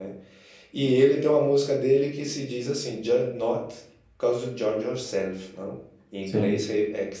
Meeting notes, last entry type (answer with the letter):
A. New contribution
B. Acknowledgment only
B